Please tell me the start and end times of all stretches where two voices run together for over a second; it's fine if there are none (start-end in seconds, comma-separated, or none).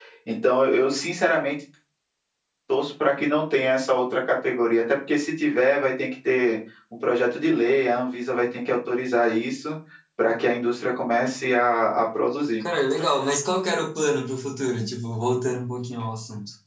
none